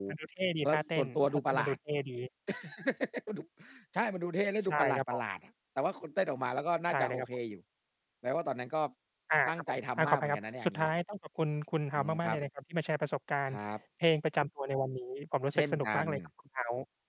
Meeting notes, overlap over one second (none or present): present